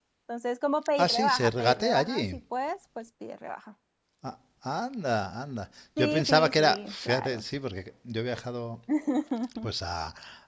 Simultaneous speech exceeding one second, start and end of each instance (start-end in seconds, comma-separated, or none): 1.0-2.4, 6.0-7.4